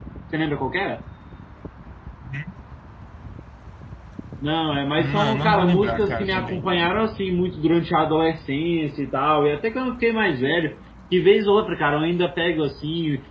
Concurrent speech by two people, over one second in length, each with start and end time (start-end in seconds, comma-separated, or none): 5.0-6.7